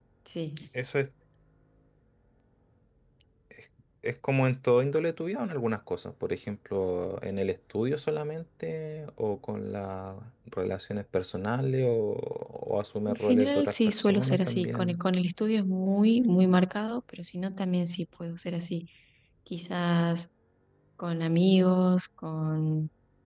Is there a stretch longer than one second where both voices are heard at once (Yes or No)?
Yes